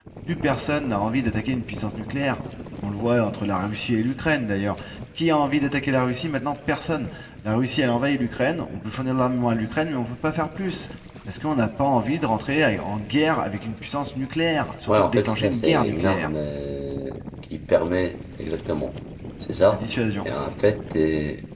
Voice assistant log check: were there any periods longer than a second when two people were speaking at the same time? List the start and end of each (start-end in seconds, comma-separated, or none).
14.9-16.3